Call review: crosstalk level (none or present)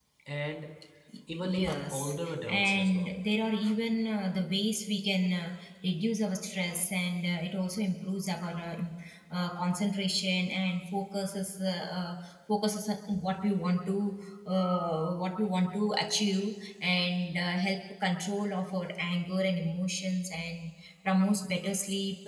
present